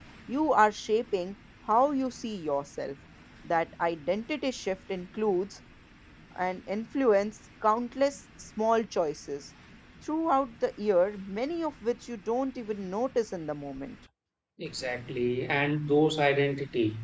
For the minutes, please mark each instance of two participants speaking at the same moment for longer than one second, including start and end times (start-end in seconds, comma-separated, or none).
none